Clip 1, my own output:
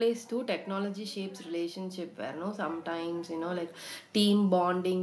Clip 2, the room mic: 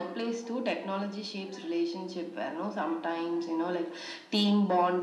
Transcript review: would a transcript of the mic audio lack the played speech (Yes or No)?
No